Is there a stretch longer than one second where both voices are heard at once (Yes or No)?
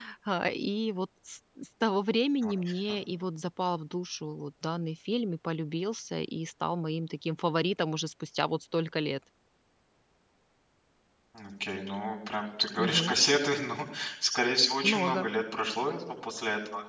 No